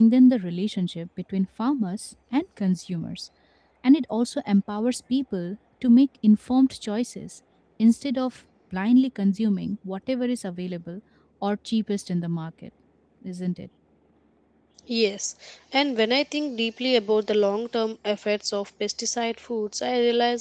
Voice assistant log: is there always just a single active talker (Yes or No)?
Yes